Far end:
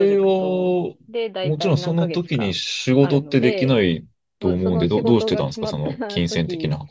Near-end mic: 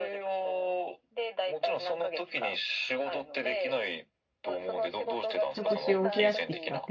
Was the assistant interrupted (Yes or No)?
Yes